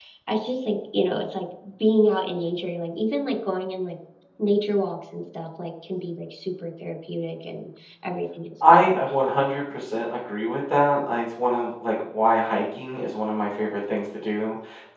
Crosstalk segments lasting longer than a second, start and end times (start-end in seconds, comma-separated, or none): none